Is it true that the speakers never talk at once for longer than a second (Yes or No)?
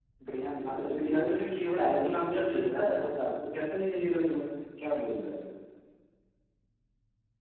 No